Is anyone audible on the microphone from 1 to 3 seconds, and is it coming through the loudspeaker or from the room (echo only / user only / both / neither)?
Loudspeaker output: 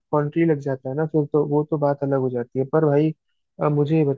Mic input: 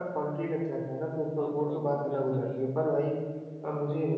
both